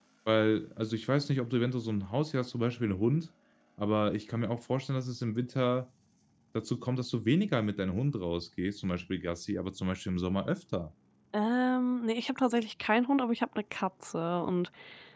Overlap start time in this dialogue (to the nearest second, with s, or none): none